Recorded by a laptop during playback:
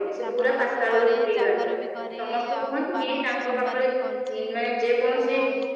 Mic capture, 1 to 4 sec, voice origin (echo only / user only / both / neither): both